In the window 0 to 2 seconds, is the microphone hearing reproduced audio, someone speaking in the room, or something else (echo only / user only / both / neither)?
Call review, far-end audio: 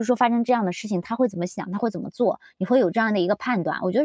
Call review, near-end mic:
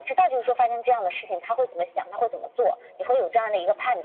echo only